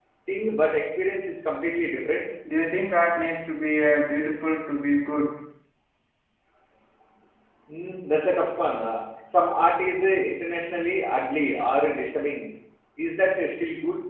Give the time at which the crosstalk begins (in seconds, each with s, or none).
none